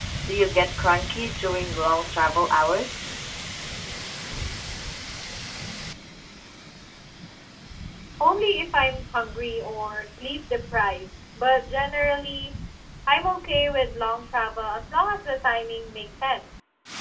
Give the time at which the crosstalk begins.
none

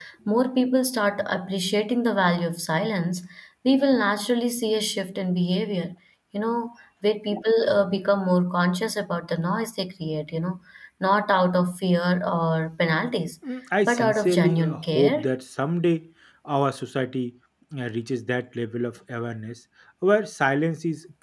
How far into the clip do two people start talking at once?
13.9 s

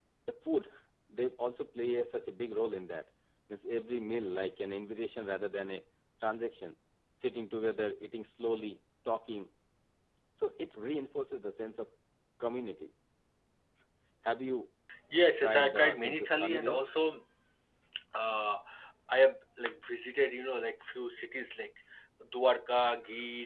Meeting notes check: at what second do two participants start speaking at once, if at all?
15.4 s

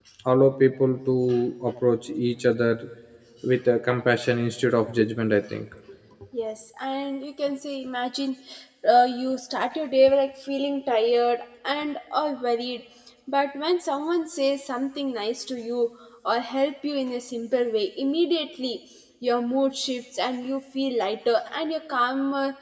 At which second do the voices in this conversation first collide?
none

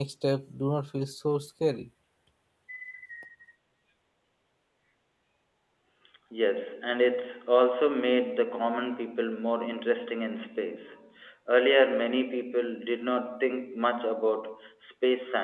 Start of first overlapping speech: none

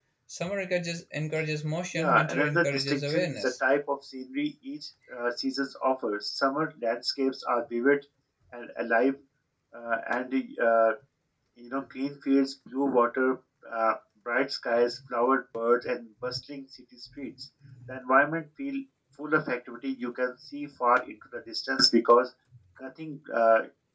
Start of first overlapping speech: 2.0 s

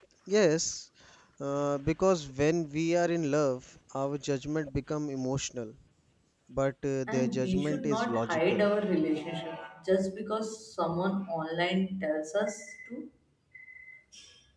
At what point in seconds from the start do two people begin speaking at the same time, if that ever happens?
7.1 s

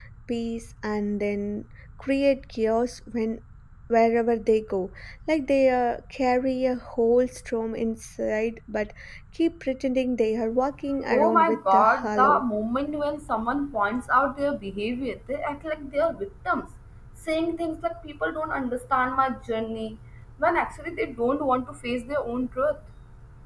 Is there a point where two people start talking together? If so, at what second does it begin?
11.1 s

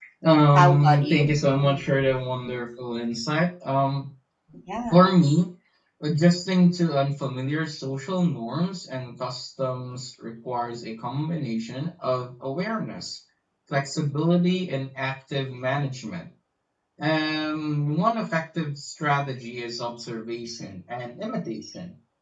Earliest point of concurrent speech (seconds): 0.5 s

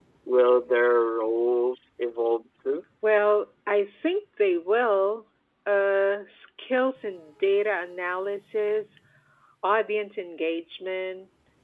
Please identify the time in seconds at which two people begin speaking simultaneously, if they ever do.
none

